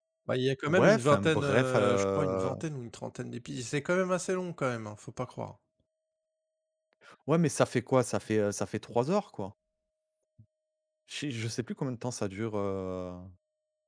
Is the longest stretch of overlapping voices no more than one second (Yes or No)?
No